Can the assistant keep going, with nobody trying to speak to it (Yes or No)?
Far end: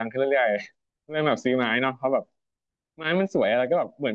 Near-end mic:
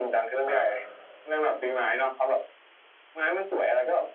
No